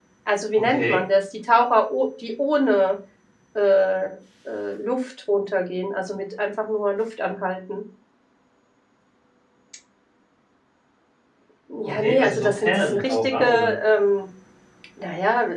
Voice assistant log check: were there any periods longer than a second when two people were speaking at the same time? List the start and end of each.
11.8-13.7

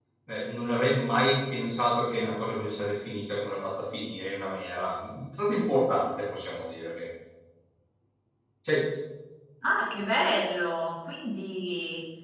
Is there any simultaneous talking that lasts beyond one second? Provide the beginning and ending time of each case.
none

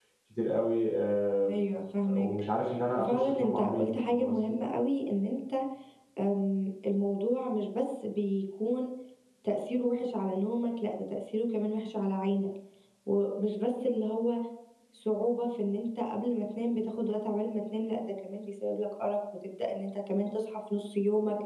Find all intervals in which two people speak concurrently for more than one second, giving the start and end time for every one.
3.0-4.6

